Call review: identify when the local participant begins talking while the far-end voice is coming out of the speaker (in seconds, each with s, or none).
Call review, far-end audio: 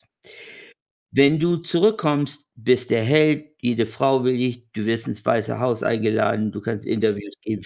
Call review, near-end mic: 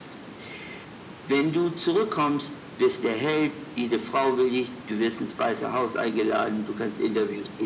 none